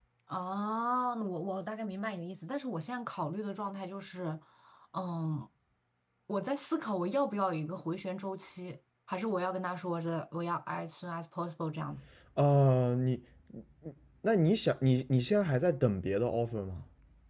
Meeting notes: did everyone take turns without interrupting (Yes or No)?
Yes